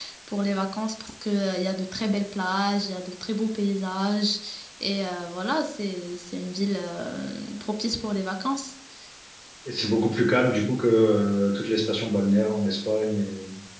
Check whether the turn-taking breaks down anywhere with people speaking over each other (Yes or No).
No